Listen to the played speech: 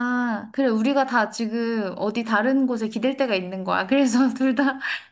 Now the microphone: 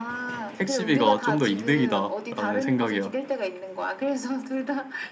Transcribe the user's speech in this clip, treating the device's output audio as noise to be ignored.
택시비가 좀 더 이득이다라는 생각이야.

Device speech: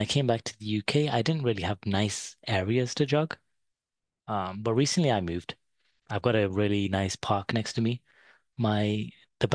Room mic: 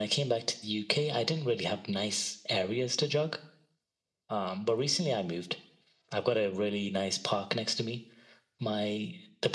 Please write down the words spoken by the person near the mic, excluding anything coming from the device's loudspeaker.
none

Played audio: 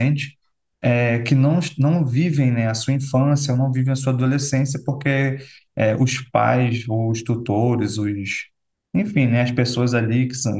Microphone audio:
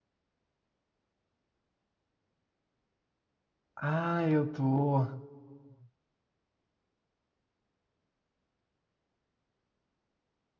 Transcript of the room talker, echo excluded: Ah, eu tô.

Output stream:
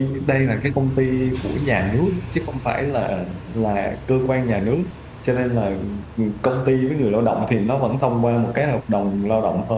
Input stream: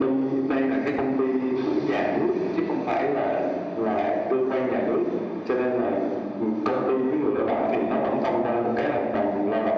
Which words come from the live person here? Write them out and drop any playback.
none

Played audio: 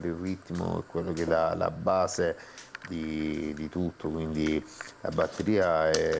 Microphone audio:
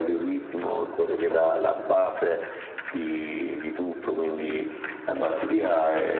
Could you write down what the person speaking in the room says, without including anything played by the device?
none

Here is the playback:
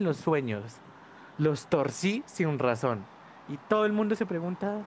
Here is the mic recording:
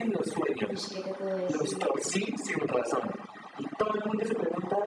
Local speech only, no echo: uy, ¿qué te puedo decir?

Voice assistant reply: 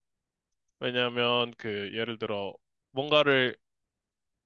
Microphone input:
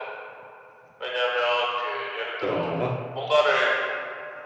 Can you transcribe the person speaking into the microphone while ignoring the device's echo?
약간 달라?

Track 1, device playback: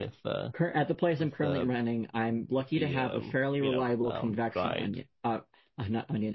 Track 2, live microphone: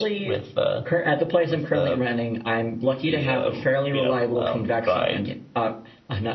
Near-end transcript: none

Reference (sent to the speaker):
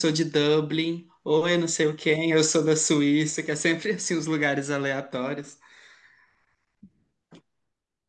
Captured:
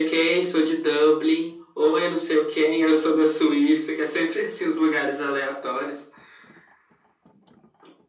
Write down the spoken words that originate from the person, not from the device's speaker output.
none

